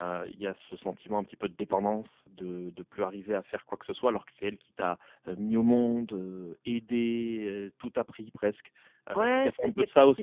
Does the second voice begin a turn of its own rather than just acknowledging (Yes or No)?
Yes